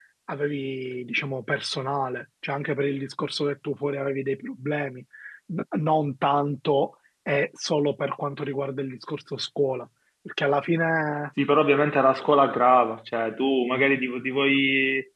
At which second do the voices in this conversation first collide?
none

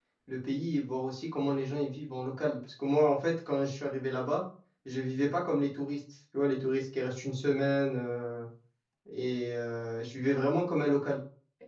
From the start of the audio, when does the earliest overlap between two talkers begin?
none

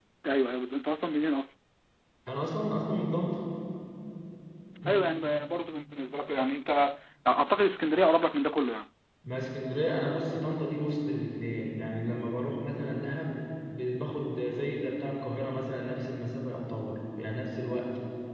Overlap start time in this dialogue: none

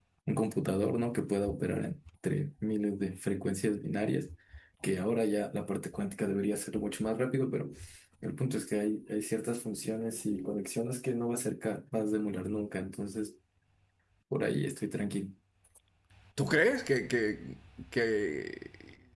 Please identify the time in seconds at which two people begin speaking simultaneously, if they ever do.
none

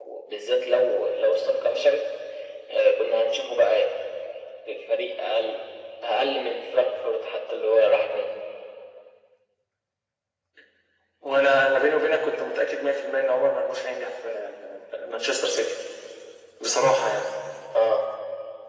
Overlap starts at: none

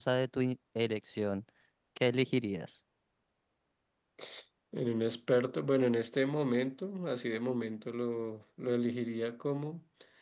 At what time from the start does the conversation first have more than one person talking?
none

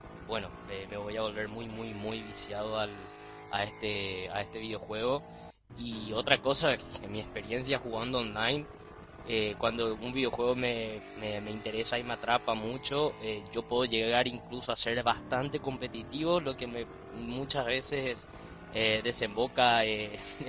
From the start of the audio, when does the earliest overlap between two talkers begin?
none

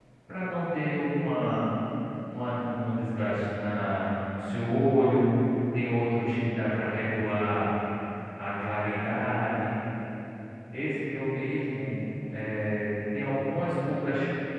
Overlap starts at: none

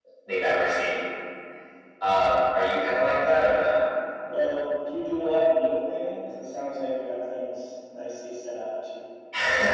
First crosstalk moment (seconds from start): none

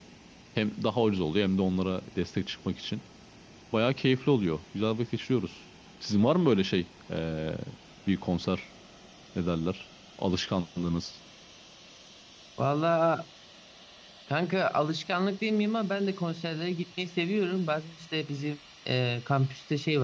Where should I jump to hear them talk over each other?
none

